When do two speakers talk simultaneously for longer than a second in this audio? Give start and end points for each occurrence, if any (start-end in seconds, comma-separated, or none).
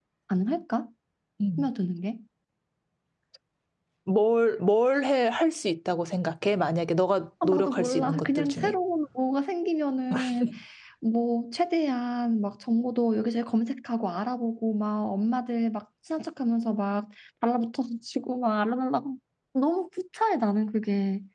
7.4-8.7